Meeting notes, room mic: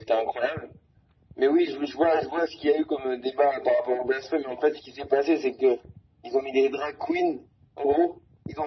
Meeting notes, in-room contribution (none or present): none